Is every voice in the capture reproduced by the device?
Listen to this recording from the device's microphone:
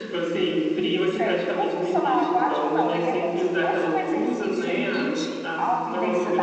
No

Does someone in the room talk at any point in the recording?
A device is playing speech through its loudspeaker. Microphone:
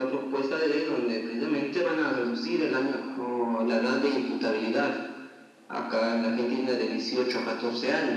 No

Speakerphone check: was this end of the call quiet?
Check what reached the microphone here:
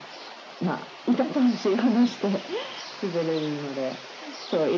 Yes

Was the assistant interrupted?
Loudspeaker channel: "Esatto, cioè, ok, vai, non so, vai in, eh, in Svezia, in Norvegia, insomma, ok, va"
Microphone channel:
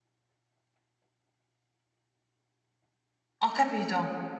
Yes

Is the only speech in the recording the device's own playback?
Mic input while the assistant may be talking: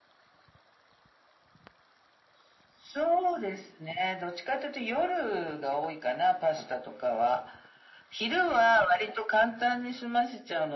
Yes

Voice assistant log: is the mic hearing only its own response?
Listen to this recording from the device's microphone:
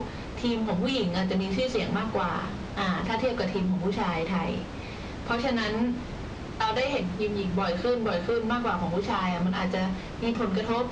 Yes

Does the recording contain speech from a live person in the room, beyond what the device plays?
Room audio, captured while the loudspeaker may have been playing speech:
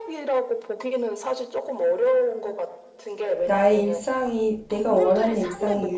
Yes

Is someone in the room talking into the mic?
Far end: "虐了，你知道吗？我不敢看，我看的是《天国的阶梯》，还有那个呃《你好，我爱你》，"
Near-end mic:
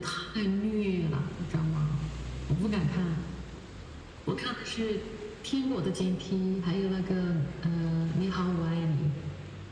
Yes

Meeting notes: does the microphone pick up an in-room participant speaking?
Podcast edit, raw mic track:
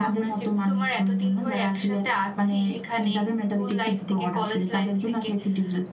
No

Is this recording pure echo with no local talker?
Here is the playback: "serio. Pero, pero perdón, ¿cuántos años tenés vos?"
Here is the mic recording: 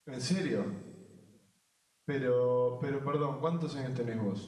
Yes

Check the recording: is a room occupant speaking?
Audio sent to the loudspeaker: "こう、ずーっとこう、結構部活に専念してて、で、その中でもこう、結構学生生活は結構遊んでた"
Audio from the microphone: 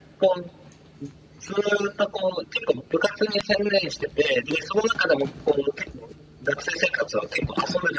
No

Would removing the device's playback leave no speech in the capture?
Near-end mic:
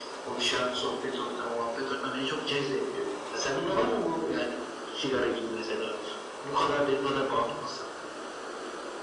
Yes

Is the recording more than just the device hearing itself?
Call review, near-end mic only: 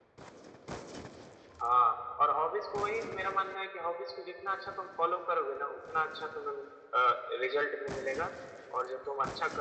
No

